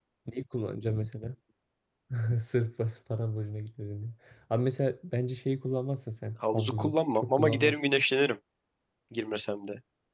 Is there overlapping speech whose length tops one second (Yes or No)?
Yes